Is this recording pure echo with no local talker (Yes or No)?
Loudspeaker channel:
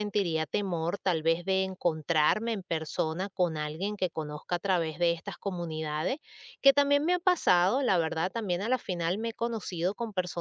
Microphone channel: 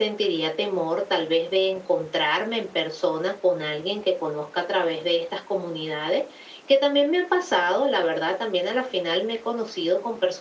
Yes